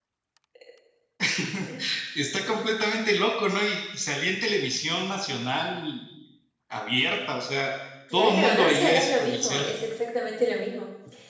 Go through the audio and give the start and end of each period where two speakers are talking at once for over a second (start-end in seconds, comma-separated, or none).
8.1-9.7